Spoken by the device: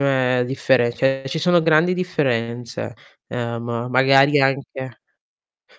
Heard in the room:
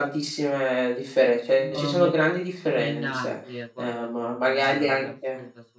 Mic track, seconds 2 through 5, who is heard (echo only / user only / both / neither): both